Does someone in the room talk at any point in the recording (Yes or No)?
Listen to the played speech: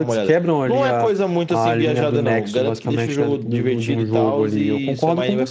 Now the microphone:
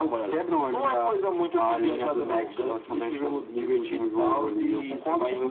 No